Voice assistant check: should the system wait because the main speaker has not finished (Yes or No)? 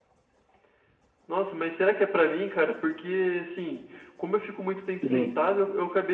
Yes